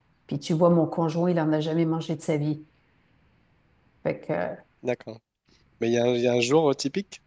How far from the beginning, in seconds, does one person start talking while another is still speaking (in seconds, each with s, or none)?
none